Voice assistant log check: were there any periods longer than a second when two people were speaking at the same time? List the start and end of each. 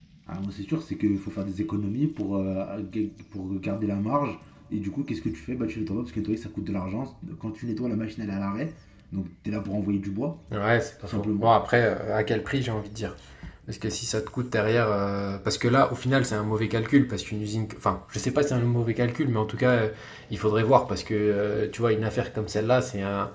none

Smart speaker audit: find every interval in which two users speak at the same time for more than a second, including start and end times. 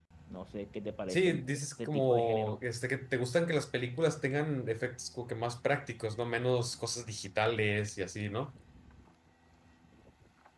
1.1-2.6

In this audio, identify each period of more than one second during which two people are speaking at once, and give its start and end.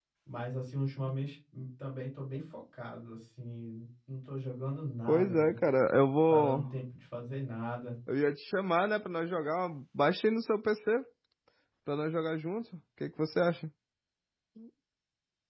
none

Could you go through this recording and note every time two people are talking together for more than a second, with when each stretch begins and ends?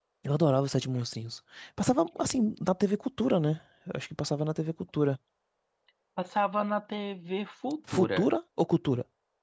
none

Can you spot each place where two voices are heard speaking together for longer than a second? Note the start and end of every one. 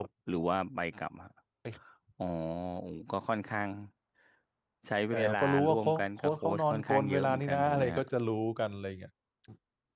5.1-8.0

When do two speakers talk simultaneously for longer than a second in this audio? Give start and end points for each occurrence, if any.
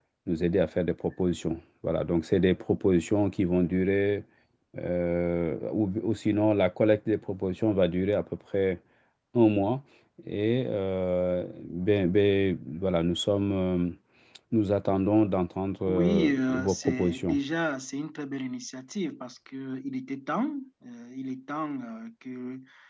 15.9-17.4

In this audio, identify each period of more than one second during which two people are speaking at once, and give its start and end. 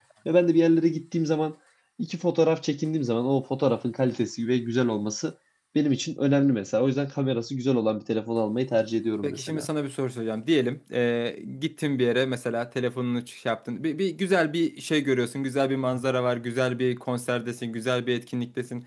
none

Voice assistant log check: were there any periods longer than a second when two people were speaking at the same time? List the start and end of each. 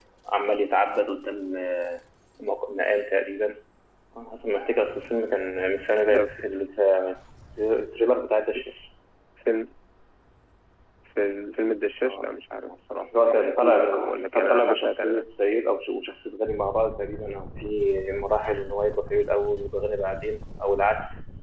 13.2-15.2

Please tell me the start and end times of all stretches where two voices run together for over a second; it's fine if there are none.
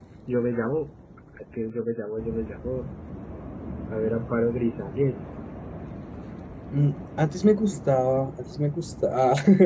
none

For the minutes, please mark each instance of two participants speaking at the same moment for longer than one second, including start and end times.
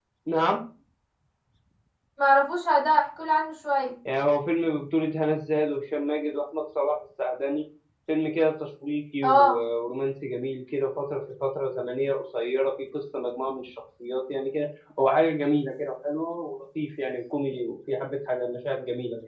none

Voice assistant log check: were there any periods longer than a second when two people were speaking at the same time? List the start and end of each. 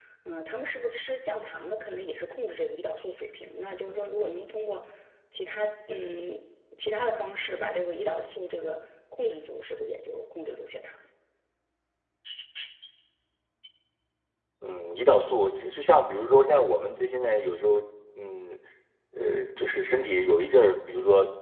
none

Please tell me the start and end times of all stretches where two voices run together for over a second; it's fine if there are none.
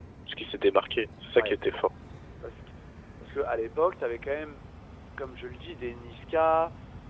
none

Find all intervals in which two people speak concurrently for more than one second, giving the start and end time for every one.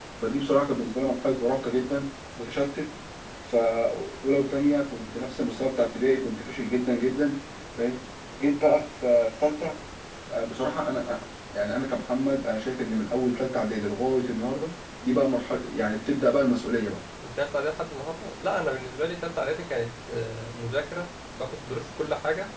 none

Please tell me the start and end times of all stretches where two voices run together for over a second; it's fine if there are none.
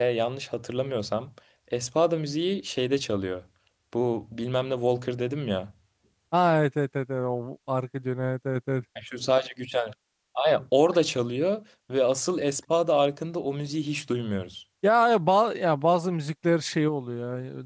none

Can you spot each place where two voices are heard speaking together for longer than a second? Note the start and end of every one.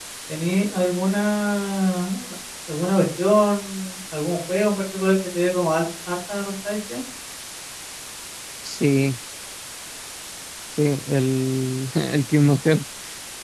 none

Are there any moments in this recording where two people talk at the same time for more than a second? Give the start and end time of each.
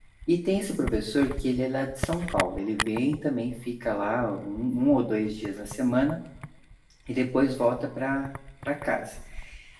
none

